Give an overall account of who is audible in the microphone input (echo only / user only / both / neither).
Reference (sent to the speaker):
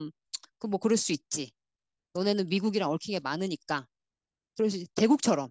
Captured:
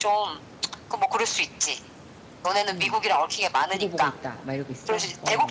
both